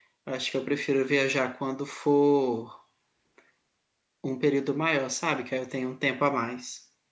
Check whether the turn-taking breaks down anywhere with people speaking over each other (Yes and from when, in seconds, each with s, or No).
No